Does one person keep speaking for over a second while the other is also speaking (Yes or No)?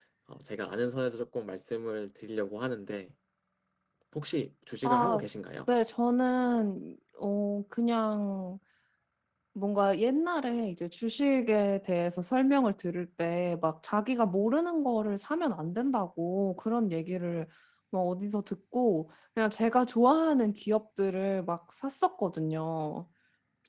No